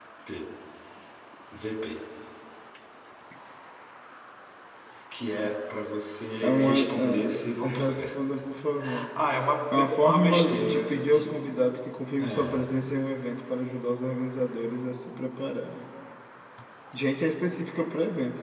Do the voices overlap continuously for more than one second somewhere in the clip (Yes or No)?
Yes